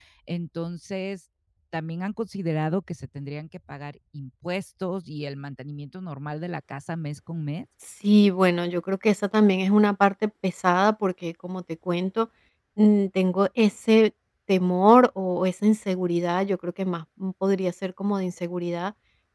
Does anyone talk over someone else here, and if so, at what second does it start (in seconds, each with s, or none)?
none